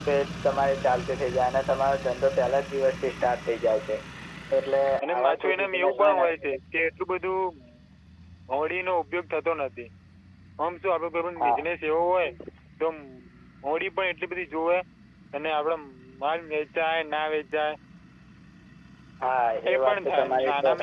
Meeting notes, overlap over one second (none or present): present